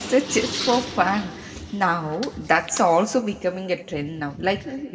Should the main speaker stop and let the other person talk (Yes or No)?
No